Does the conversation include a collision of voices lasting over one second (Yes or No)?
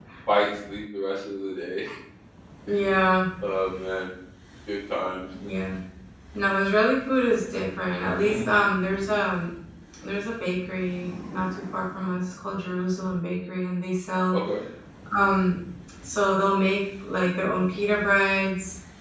No